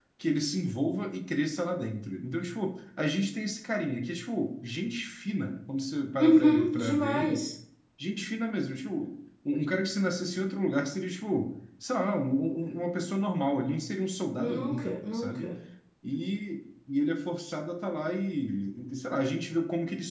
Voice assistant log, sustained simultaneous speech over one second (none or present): present